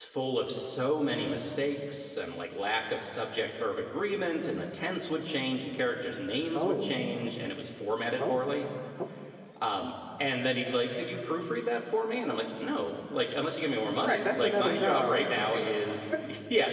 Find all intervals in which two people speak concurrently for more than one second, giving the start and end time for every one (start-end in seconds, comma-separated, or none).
14.0-15.2